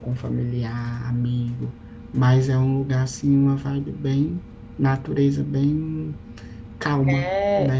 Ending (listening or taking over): taking over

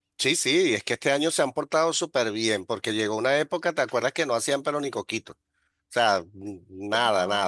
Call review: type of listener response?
listening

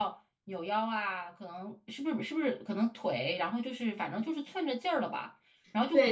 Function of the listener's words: taking over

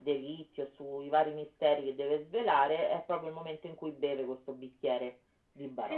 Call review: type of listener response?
taking over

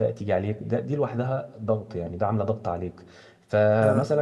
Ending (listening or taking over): listening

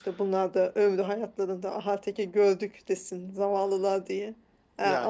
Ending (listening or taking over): listening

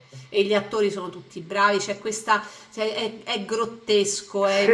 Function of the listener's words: listening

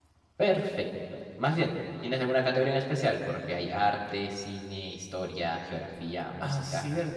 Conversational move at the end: taking over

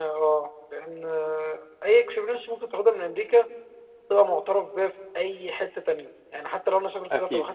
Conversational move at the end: listening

